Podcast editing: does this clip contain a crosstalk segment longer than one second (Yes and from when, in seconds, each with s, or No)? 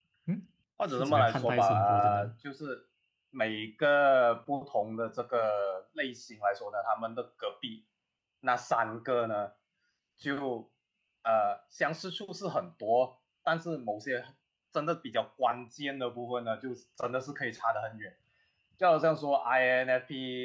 Yes, from 0.9 s